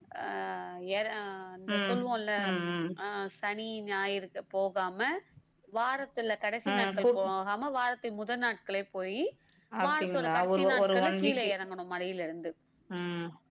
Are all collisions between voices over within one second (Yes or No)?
No